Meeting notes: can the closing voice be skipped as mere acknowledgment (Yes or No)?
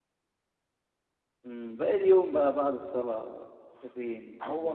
No